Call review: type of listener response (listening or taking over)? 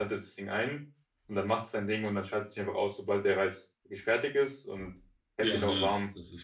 taking over